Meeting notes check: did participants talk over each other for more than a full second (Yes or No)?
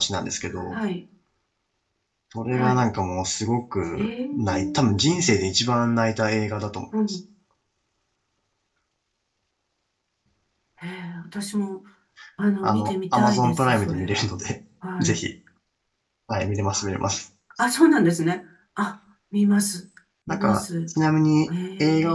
Yes